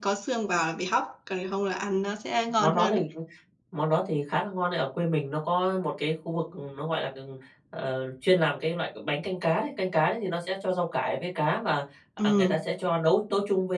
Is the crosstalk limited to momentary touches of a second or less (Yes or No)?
Yes